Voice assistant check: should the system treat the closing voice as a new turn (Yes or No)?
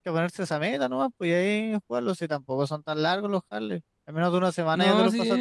Yes